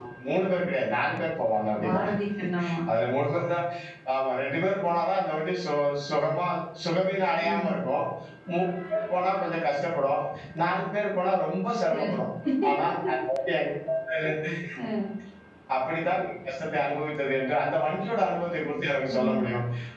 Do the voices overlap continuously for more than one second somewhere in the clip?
No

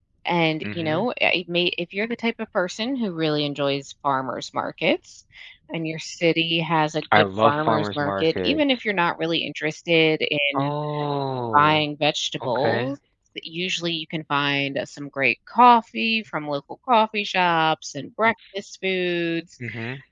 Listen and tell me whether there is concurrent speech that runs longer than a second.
Yes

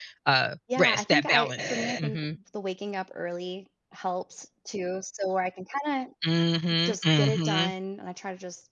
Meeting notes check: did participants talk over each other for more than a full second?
Yes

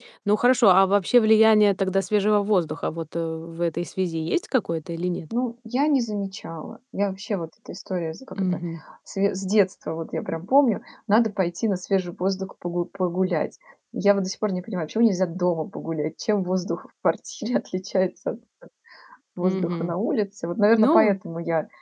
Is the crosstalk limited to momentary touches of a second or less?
Yes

